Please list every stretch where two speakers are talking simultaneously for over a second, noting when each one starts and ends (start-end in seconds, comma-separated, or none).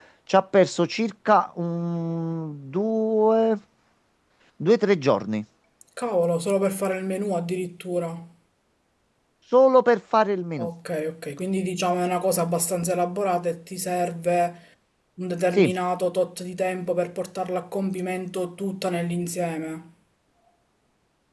none